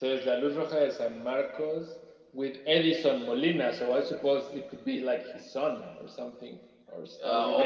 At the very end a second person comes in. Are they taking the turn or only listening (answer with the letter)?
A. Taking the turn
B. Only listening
A